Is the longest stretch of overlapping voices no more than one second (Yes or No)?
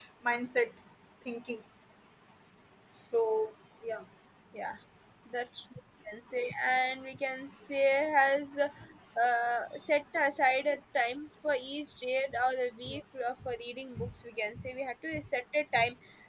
Yes